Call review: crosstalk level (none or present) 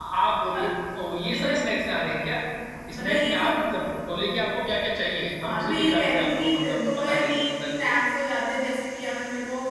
present